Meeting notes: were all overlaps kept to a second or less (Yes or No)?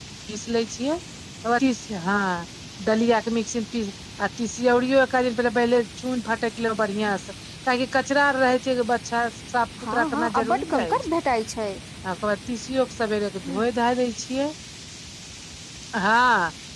No